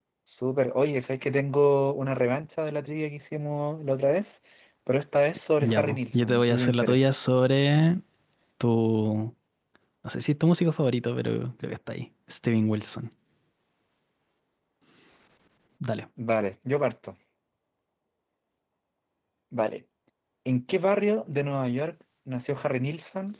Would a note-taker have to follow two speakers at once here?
Yes, from 5.6 s

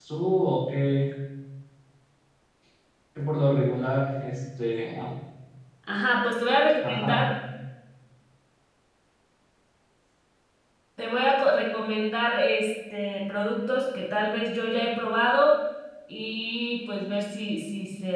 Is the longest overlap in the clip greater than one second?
No

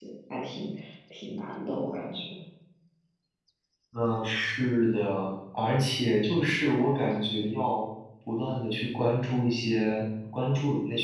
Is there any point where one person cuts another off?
No

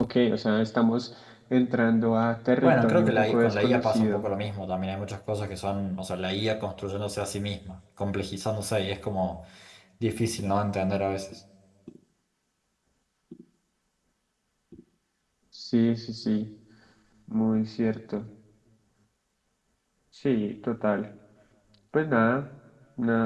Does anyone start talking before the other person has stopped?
Yes, from 2.6 s

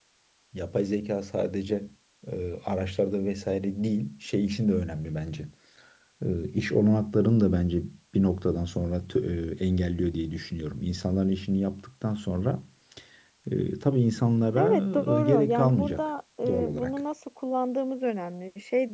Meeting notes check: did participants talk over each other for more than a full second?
Yes, from 14.5 s

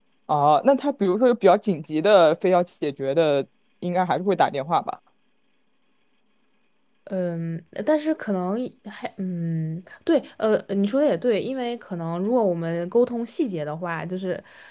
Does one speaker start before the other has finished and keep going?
No

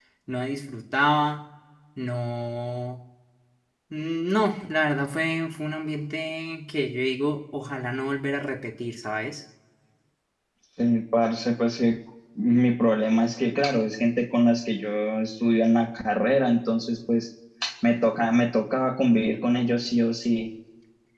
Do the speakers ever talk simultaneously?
No

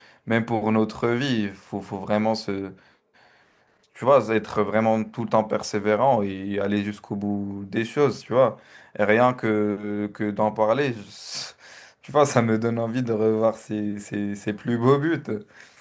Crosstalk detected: No

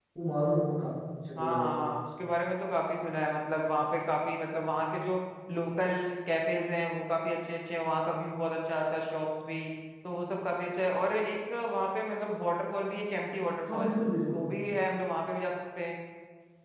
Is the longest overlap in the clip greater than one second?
No

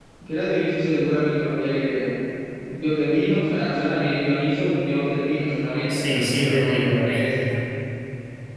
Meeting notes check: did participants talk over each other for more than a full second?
Yes, from 5.9 s

